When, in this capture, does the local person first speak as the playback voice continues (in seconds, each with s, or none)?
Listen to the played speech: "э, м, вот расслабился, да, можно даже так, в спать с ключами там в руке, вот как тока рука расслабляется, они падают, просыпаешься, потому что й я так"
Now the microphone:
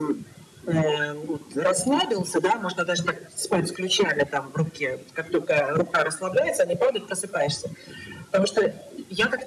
none